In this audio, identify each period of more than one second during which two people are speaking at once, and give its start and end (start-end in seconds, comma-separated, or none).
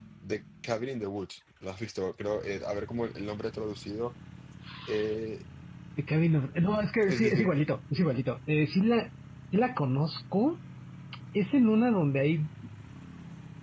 none